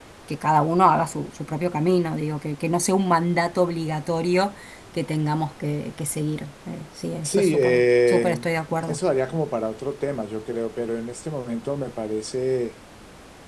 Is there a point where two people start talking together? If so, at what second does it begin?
7 s

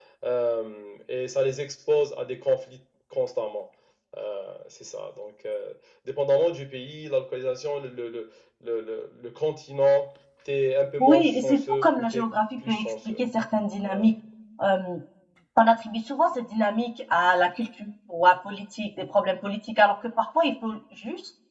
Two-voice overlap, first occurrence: 11 s

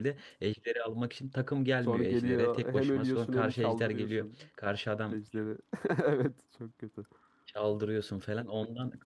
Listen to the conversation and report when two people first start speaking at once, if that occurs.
2 s

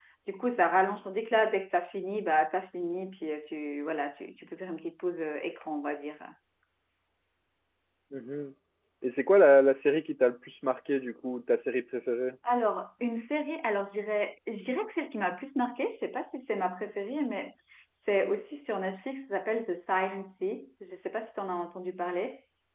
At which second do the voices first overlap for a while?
none

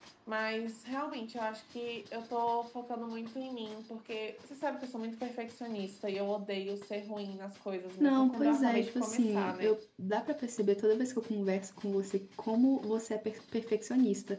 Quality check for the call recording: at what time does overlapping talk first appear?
8 s

